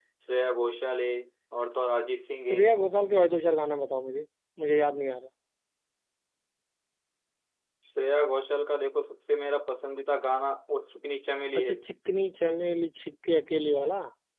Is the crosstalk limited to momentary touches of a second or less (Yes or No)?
Yes